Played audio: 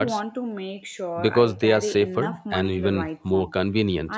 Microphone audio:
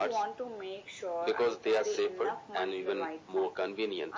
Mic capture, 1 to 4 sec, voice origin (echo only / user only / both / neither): echo only